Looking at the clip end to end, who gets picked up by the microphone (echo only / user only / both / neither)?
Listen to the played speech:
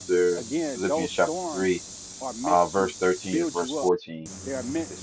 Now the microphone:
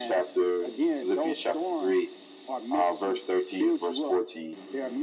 echo only